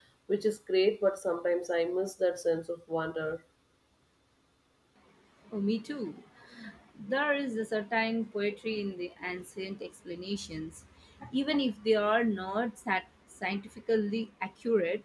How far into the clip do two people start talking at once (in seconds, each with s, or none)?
none